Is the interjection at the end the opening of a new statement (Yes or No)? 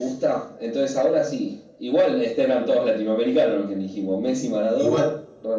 Yes